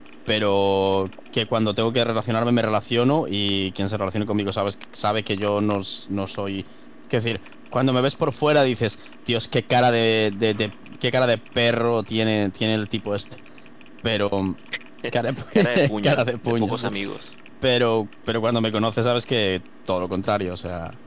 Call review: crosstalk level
present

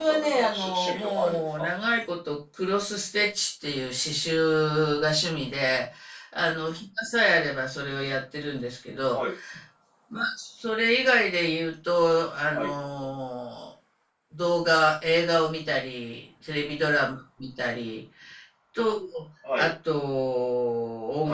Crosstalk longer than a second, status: present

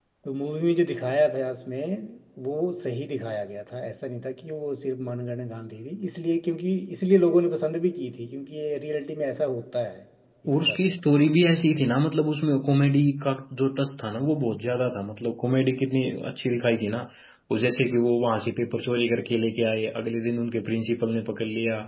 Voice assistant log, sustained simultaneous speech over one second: none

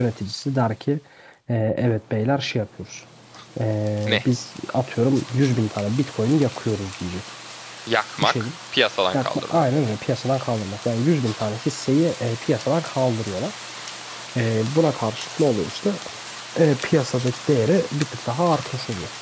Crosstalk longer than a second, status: none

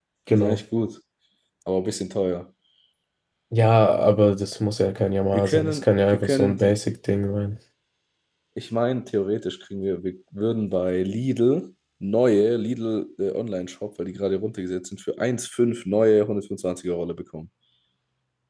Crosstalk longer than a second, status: present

